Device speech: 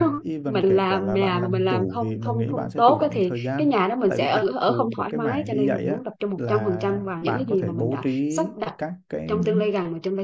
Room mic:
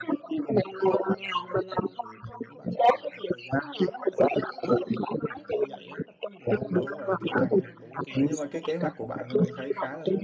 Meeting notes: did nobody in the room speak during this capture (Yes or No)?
No